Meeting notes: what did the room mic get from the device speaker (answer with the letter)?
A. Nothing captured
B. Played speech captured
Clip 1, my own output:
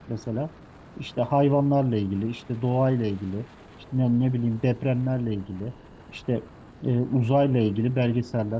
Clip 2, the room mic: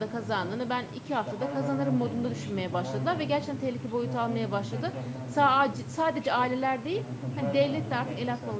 B